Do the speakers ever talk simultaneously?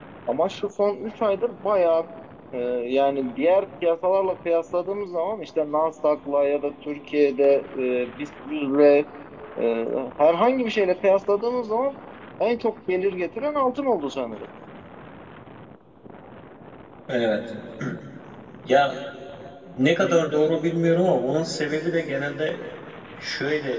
No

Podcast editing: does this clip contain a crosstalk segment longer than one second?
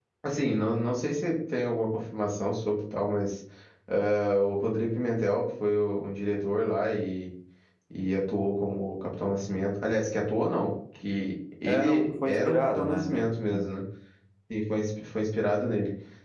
Yes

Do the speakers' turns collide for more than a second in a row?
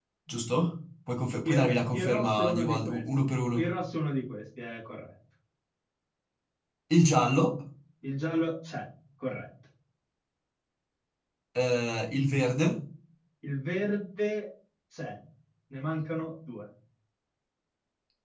Yes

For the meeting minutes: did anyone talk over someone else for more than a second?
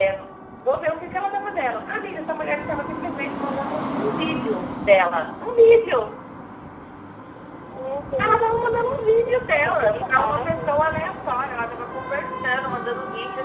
Yes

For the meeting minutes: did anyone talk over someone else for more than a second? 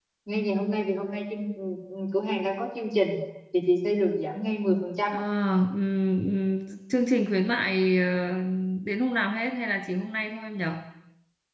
No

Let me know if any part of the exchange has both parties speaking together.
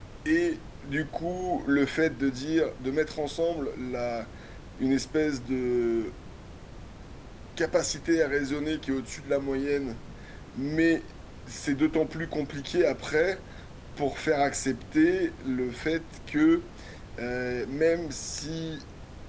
No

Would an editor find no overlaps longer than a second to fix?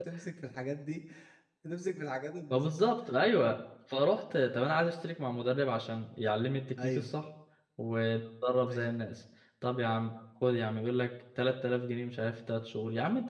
Yes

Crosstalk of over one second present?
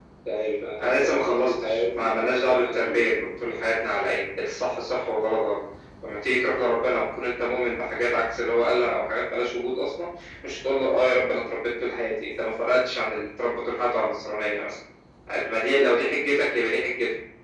Yes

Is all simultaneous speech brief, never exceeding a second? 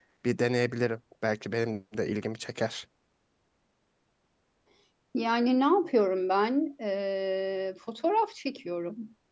Yes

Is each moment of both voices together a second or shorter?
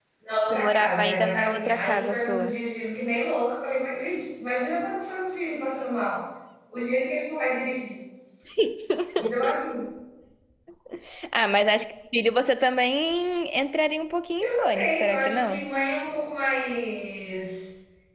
No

